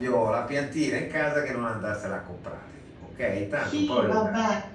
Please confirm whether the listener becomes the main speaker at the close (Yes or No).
Yes